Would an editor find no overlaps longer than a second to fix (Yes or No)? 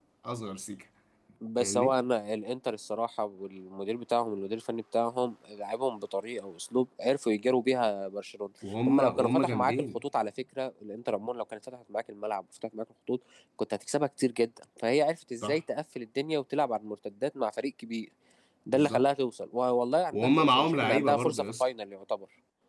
No